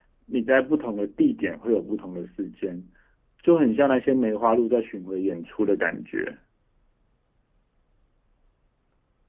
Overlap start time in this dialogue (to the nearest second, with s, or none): none